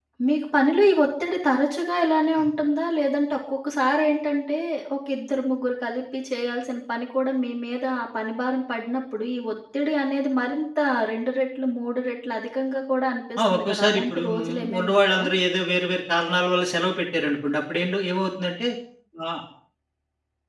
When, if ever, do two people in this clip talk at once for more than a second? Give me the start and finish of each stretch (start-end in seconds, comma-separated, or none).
13.4-15.3